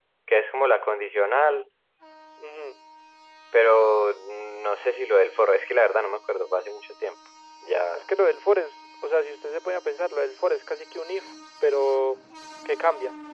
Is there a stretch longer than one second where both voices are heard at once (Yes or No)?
No